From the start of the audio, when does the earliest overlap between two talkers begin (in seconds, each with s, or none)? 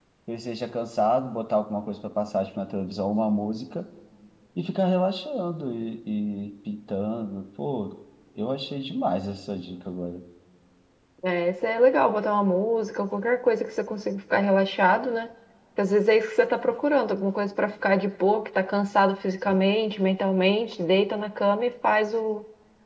none